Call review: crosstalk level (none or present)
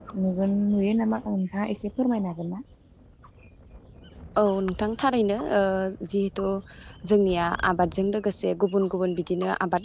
none